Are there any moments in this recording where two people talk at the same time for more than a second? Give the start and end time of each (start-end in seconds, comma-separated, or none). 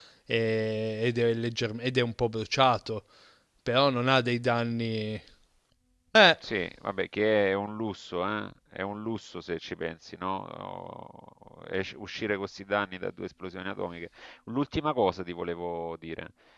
none